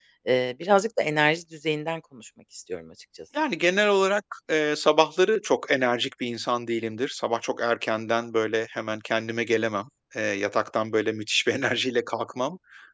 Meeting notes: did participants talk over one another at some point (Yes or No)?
No